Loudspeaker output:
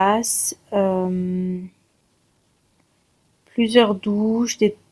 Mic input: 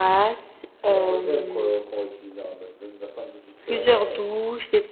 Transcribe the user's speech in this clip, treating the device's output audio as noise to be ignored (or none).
C'est en mode L quoi, qu'on va utiliser, hein, en mode vas-y, va faire une douche vite fait là-bas. euh,